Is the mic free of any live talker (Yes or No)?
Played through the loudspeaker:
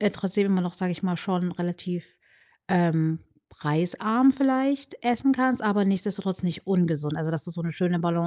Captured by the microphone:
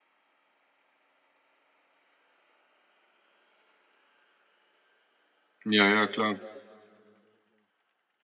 No